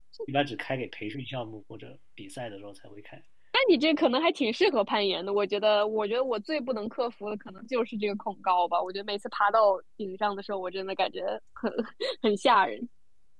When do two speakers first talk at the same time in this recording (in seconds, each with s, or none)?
none